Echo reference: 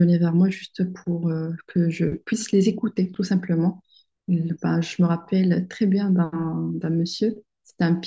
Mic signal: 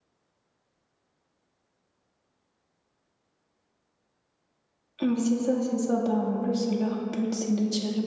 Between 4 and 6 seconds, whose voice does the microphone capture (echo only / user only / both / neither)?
user only